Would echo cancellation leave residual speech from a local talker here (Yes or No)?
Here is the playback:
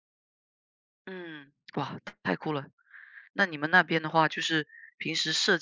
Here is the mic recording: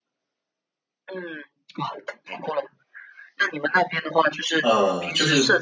Yes